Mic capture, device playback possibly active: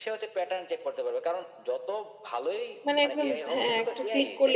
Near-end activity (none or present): present